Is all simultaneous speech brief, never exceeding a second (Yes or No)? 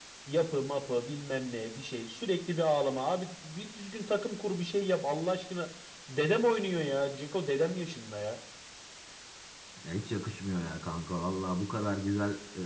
Yes